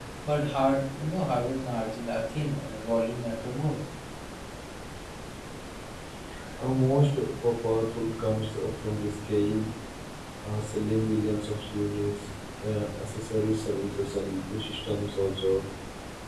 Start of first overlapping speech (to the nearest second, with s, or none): none